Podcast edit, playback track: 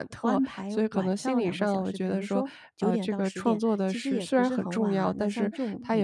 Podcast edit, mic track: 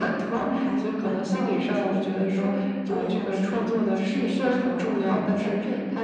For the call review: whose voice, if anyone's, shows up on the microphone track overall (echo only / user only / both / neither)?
echo only